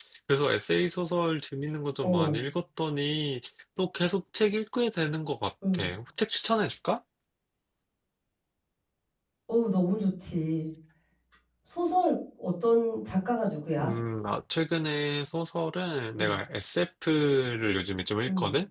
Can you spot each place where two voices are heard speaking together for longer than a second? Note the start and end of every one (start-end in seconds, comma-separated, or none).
none